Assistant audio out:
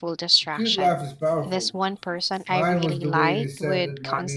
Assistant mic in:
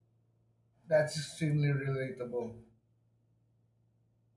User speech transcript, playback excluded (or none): That's extremely relatable.